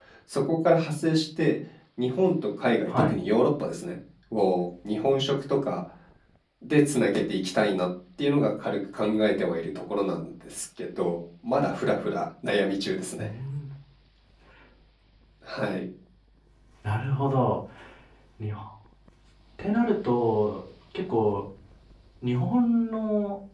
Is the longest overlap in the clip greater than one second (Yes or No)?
No